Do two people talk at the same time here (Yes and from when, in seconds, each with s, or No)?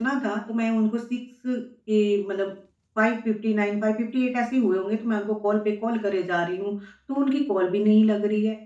No